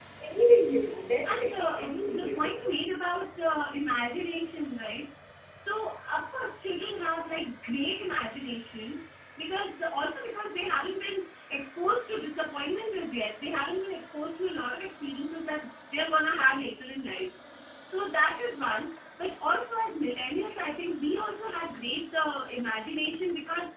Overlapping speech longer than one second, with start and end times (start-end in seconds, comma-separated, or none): 1.2-2.7